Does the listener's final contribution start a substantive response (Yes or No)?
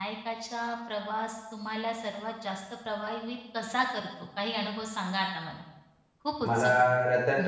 Yes